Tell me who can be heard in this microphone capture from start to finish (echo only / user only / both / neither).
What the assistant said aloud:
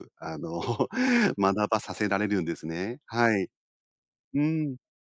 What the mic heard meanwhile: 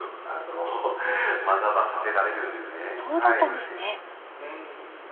both